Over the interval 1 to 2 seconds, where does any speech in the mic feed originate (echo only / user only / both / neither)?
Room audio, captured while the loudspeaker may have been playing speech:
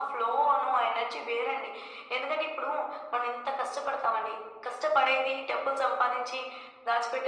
echo only